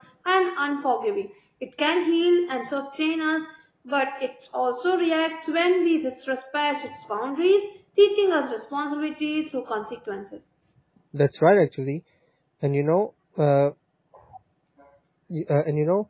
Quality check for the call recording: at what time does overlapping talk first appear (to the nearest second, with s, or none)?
none